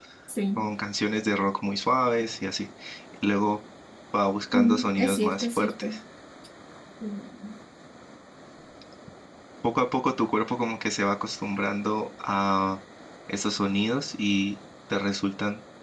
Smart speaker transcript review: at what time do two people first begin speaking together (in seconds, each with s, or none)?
4.5 s